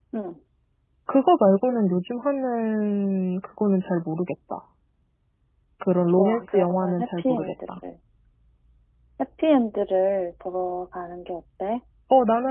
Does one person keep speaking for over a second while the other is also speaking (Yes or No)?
Yes